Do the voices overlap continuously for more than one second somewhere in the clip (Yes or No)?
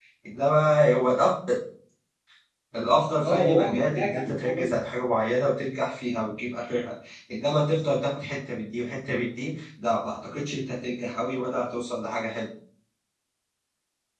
Yes